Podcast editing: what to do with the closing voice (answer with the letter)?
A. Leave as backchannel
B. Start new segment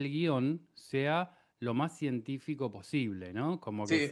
B